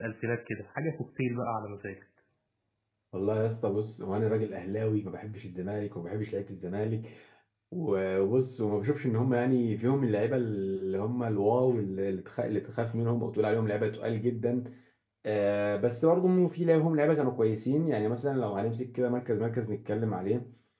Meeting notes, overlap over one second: none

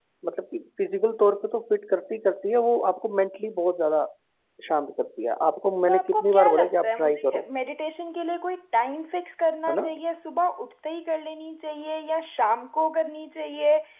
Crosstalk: present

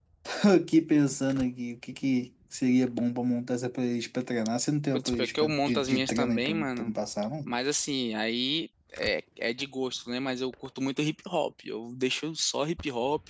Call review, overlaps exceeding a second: present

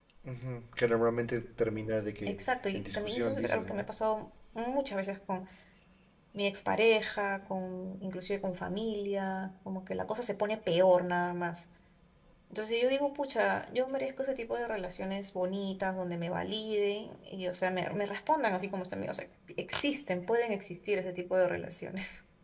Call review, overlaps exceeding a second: present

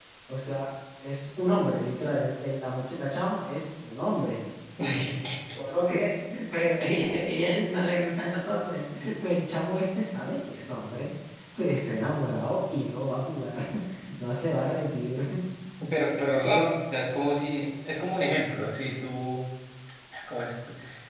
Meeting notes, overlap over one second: none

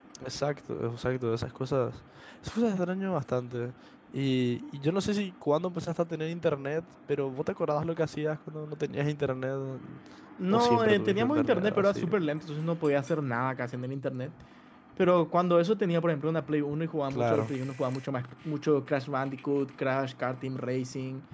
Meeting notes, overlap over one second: present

